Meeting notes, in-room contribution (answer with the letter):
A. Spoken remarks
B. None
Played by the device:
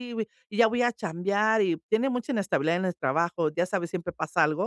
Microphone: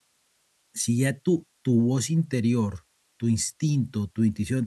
A